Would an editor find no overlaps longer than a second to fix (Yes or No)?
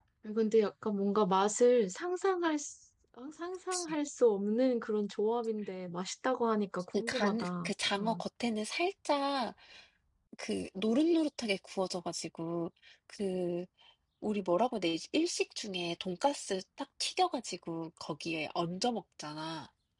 No